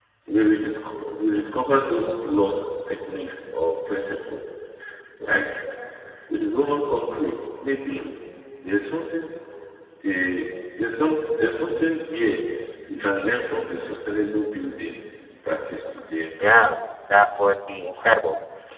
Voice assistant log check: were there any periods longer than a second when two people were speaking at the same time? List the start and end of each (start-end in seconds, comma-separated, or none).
none